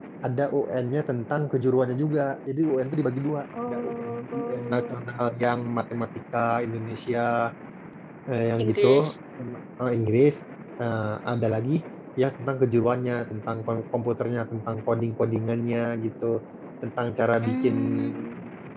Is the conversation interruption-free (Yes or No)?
No